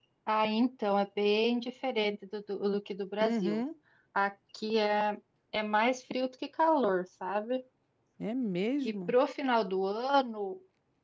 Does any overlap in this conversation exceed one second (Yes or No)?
No